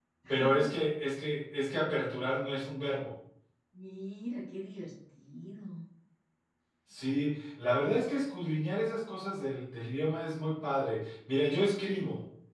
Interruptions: none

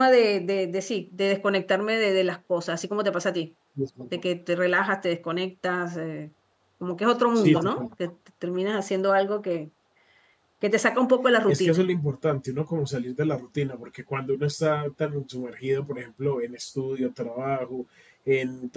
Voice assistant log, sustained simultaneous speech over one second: none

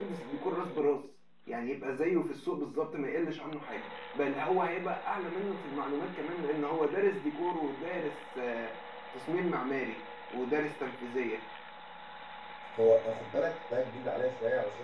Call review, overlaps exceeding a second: none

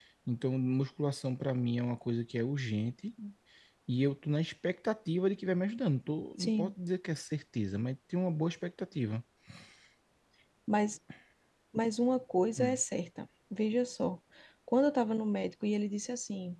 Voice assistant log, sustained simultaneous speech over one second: none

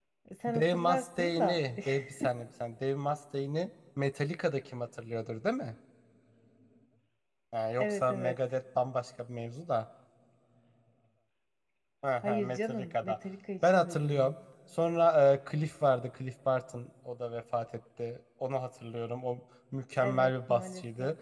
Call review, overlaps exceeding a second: present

